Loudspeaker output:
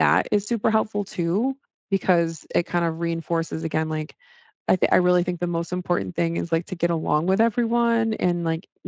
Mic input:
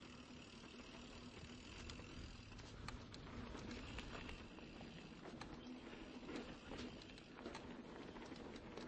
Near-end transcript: none

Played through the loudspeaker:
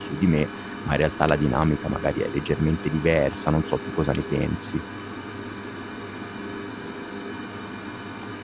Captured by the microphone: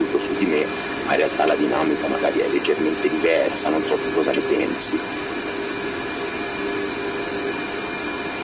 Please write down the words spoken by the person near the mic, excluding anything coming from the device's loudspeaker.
none

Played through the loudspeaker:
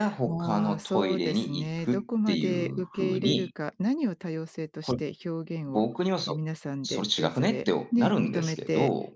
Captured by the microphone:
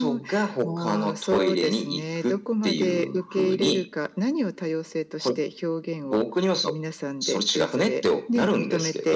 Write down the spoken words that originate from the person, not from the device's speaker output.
none

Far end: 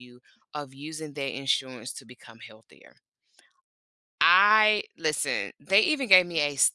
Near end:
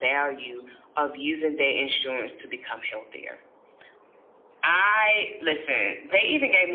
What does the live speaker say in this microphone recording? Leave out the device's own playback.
none

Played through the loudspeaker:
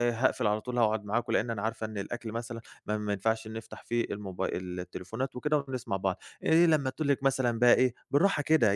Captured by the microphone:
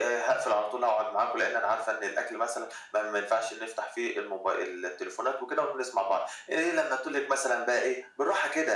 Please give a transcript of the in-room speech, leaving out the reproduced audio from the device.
none

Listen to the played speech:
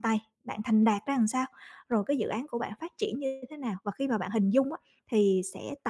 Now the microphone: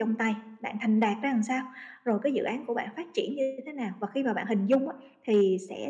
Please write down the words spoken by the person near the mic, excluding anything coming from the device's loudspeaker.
none

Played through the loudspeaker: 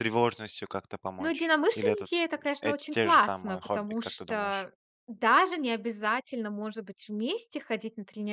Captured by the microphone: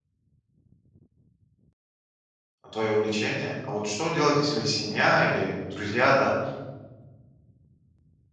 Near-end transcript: твое увлечение. А вот что делать, если семья или друзья, да,

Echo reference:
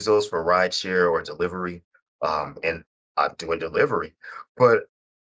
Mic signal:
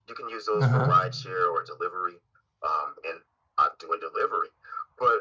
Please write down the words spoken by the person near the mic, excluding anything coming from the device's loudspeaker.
Uh-huh.

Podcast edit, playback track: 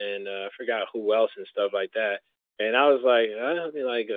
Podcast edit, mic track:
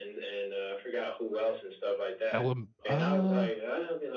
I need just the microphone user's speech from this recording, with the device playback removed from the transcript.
elem uh,

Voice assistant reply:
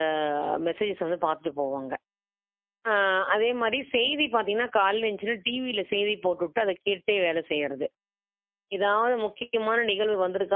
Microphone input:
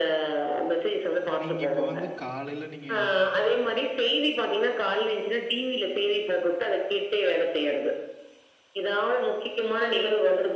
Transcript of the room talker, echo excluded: நீங்க இப்ப வந்து காலையில நீங்க

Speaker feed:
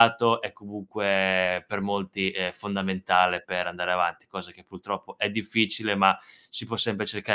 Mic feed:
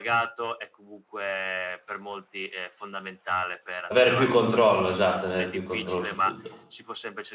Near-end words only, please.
Avere più controllo, esatto, avere più controllo su tutto.

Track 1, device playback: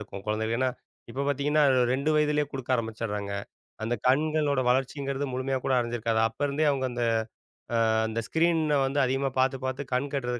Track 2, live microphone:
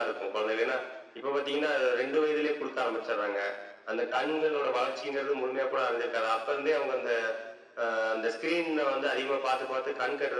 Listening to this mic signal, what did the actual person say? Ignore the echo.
none

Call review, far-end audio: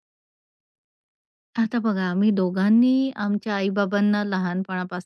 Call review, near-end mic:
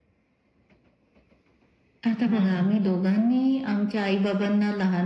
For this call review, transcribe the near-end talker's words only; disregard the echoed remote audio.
हं.

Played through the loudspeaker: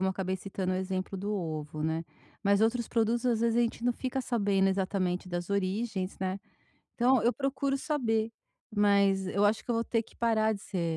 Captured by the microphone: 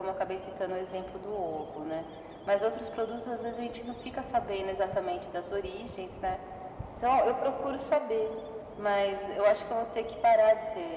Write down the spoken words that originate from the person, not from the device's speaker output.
none

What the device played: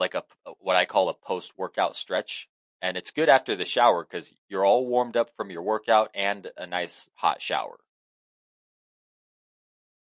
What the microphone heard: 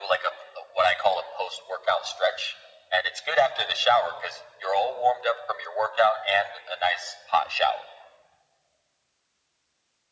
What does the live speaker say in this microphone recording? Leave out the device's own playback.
none

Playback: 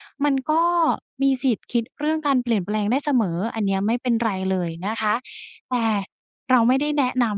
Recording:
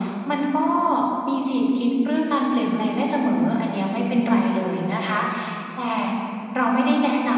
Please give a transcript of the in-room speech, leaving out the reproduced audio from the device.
none

